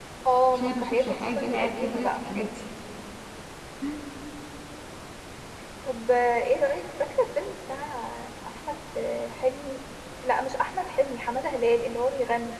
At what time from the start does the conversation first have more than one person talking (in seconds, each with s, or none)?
0.5 s